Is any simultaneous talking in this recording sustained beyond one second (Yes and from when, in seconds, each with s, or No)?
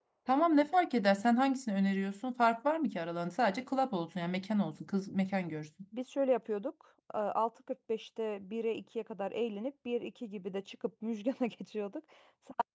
No